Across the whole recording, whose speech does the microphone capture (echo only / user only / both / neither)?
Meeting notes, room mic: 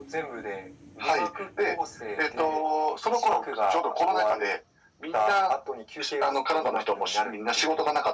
echo only